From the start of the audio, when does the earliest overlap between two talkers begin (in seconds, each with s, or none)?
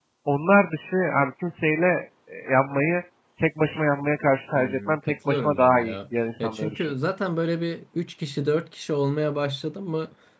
4.5 s